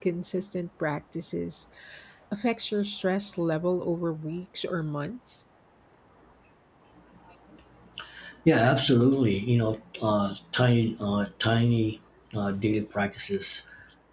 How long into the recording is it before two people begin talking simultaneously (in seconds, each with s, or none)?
none